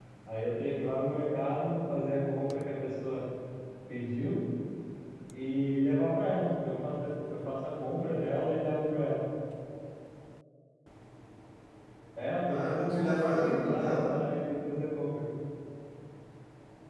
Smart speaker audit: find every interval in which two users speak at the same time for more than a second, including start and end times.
12.5-14.1

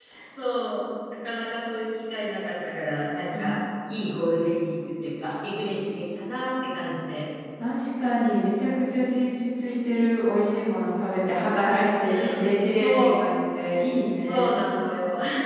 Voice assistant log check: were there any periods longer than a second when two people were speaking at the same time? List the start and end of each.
12.0-13.2

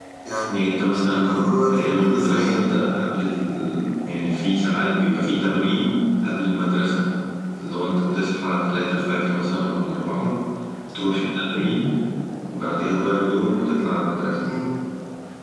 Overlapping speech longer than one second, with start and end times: 1.1-2.7

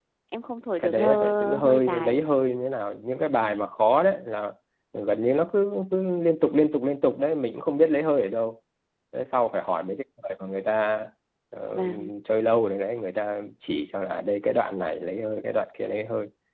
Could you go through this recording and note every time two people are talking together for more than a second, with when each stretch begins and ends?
0.8-2.2

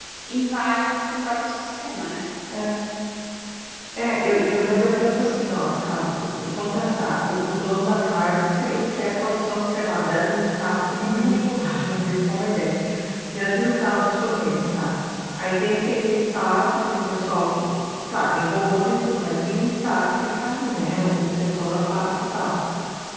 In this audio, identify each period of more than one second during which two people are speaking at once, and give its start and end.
none

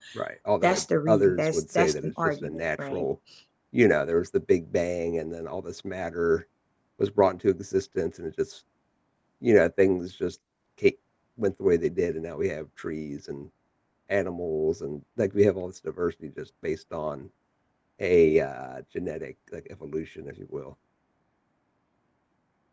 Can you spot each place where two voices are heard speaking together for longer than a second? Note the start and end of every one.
0.6-3.0

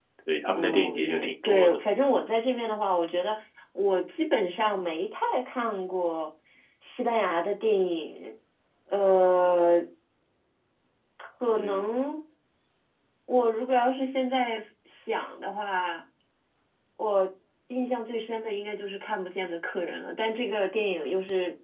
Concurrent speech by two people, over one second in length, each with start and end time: 0.5-1.8

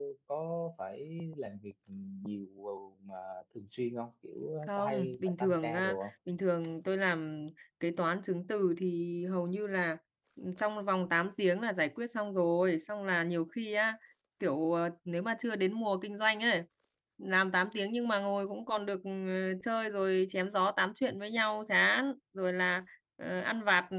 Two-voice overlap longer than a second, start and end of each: 4.8-6.0

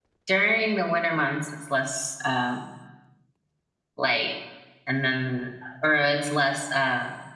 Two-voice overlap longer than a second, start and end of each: none

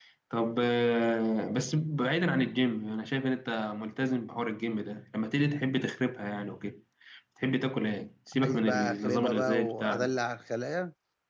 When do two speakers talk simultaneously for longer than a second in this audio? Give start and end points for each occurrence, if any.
8.4-10.2

